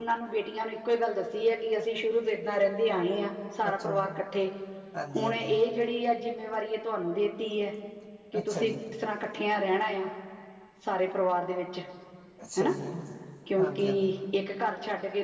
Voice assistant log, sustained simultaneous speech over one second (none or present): none